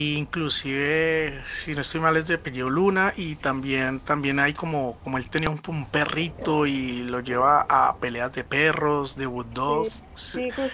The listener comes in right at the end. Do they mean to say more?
Yes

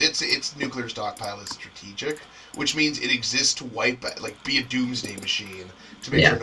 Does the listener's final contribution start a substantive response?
No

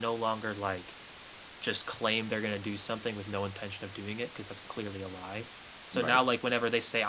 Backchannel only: Yes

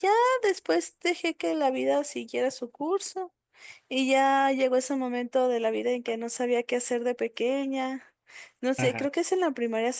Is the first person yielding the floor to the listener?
No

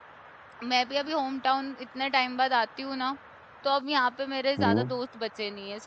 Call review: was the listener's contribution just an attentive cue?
Yes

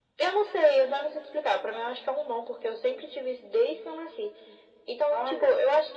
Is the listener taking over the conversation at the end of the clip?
No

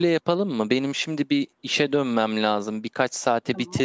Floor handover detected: No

